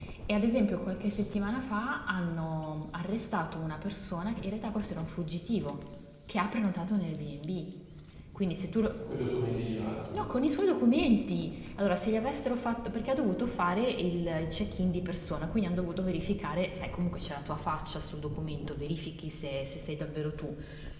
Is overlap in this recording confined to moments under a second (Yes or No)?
Yes